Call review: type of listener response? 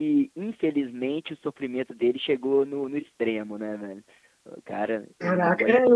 taking over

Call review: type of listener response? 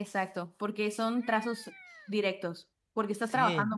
listening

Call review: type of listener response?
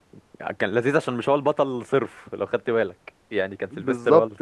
taking over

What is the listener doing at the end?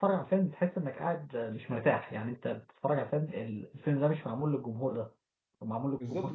taking over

